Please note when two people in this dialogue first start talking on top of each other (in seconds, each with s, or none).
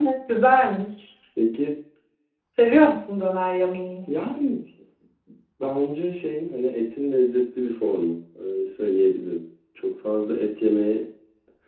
none